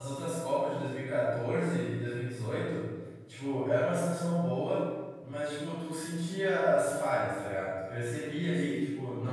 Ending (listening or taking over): listening